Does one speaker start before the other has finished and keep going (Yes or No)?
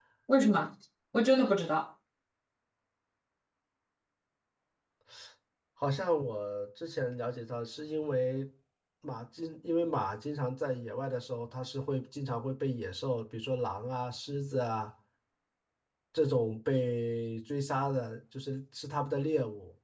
No